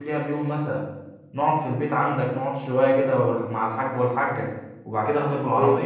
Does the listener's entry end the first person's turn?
No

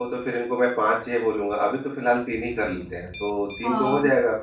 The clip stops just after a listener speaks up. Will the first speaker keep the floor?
No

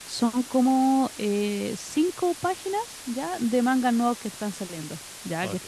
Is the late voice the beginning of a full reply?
No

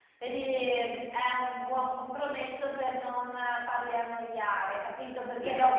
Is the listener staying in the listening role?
No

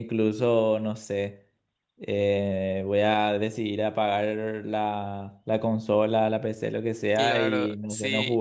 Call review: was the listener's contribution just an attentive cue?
No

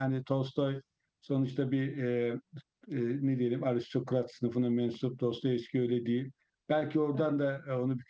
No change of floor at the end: Yes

